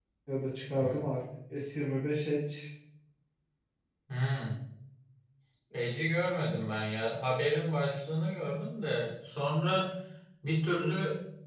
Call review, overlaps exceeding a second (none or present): none